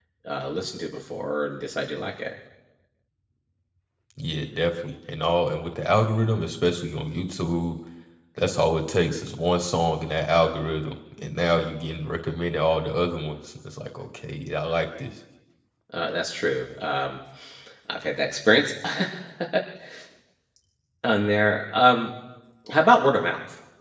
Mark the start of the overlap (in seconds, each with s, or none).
none